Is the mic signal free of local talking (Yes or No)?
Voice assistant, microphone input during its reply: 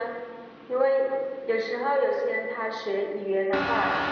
Yes